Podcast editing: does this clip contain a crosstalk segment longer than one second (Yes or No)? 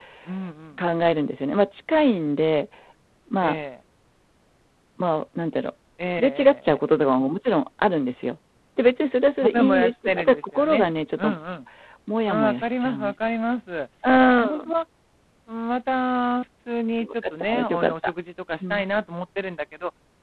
Yes